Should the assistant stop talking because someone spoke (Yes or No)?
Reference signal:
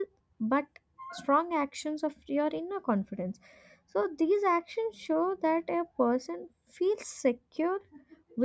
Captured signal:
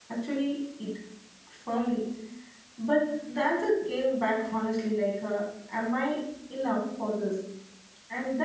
Yes